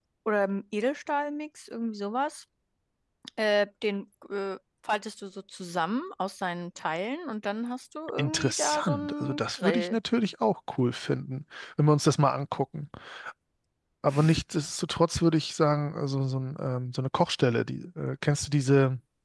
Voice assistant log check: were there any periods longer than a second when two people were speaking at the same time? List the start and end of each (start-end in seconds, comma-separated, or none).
8.2-10.0